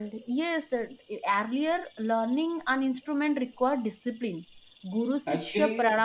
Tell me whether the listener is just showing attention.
No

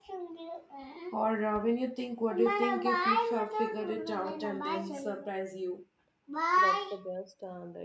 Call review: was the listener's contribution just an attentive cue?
No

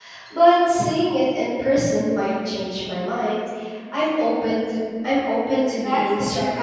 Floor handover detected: Yes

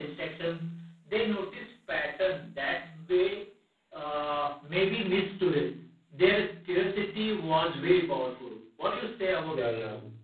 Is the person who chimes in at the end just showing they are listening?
No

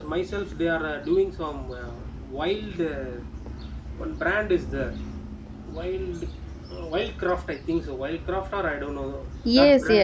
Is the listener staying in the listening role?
No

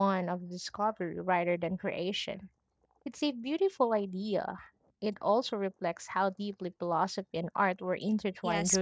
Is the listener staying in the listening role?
No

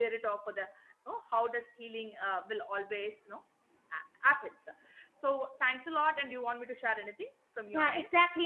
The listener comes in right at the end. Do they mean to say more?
Yes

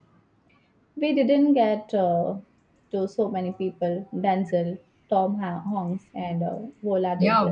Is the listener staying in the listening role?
No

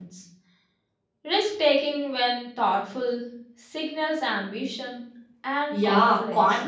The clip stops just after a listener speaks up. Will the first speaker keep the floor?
No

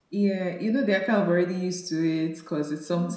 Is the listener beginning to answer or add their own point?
No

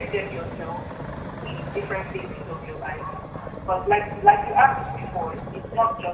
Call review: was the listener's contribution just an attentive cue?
Yes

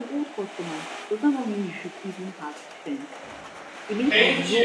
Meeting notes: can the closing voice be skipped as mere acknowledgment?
Yes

